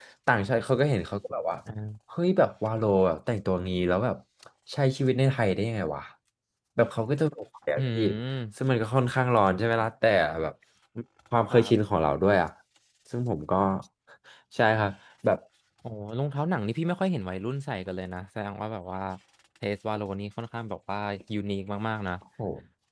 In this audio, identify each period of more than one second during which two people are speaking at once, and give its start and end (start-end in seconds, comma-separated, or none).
none